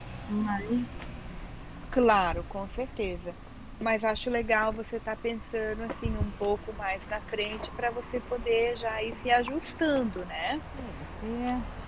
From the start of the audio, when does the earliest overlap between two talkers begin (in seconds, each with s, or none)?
none